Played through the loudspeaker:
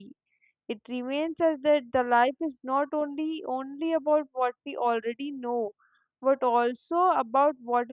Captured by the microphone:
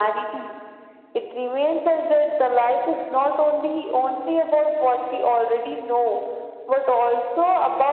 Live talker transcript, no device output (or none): none